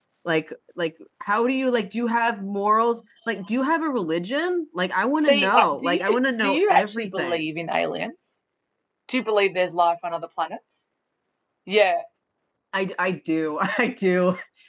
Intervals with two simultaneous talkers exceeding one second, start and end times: 5.2-7.5

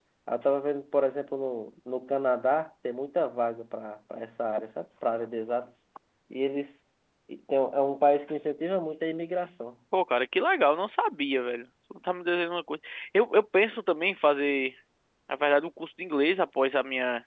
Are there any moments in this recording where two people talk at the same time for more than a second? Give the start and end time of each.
none

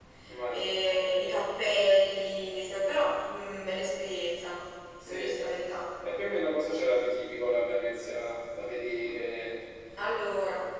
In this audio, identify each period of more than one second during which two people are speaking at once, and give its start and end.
none

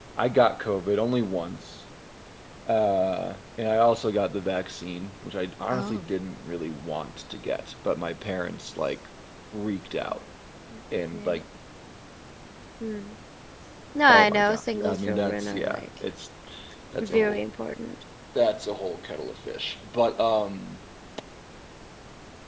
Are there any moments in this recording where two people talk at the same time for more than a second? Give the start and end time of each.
14.1-15.8

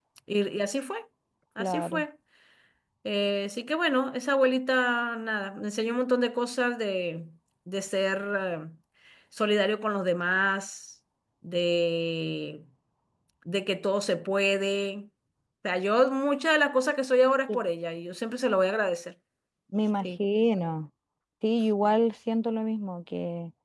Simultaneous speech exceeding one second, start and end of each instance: none

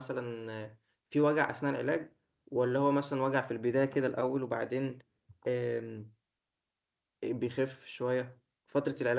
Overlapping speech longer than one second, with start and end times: none

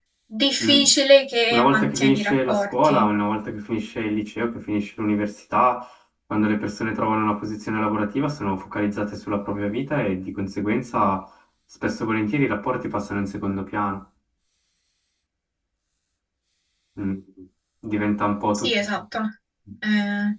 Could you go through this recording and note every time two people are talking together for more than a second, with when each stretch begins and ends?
1.5-3.1

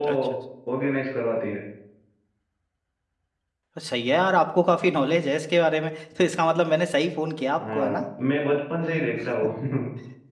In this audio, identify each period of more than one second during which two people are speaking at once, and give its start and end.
none

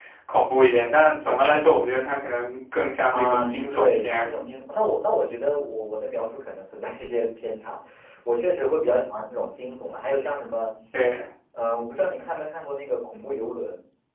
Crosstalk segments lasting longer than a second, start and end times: 3.1-4.3

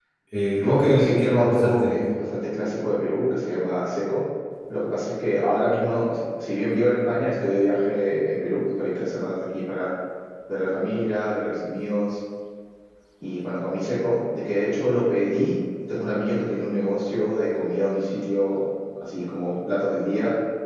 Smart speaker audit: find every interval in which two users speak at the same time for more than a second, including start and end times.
0.5-1.9

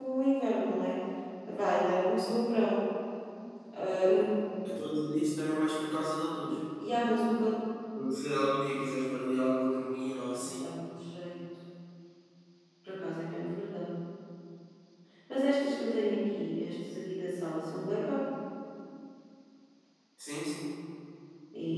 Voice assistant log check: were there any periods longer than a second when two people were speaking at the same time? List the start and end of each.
none

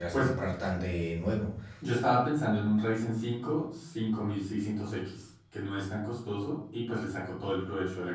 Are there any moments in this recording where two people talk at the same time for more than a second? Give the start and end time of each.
none

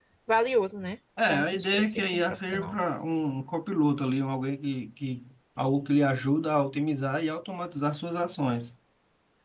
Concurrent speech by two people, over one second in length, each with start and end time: 1.3-2.8

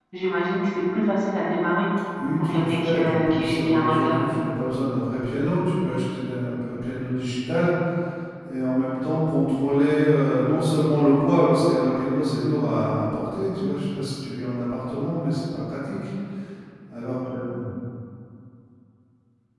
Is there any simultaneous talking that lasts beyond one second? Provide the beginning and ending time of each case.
2.4-4.2

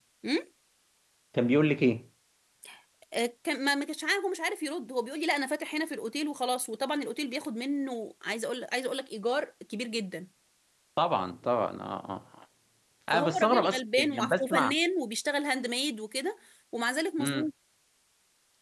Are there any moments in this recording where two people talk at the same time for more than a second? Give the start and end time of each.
13.1-14.7

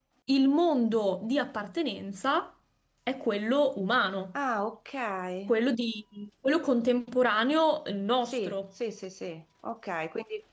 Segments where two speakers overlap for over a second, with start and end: none

